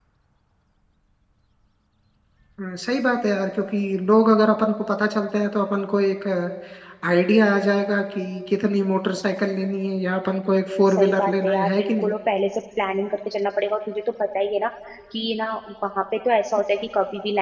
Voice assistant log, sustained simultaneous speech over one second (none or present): present